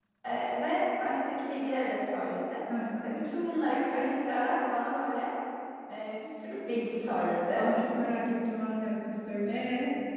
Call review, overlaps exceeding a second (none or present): none